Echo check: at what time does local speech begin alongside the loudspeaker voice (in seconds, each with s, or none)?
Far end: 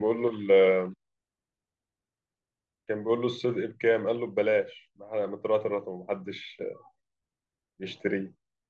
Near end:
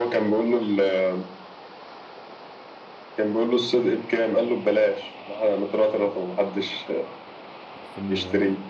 7.8 s